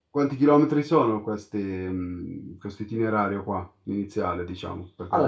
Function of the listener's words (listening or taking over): taking over